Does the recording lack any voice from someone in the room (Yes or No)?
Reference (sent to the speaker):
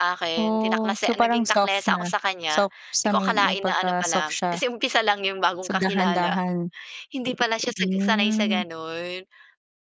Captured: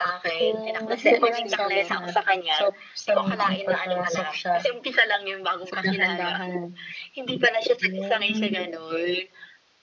No